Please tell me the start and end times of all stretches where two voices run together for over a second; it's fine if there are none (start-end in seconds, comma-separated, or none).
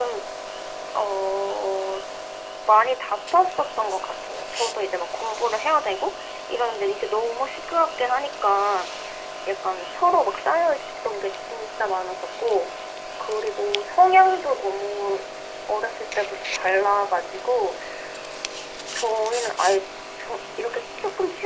none